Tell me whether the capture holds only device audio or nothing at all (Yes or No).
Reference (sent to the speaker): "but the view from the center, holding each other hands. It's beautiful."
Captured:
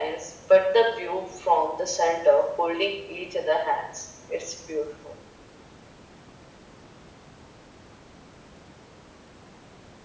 Yes